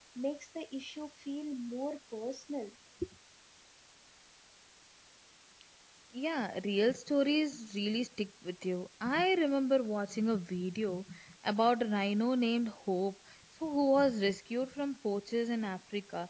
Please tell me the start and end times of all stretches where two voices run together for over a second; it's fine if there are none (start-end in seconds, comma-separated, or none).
none